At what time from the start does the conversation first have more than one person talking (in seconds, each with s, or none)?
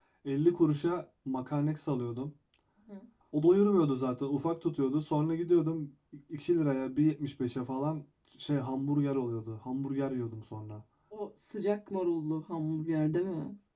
none